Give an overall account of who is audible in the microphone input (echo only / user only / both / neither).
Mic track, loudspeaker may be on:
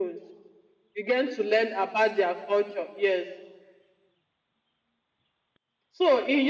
echo only